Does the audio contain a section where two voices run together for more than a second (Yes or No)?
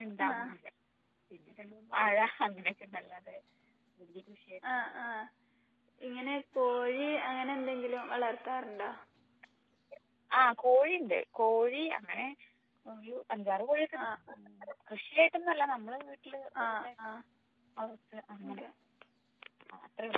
No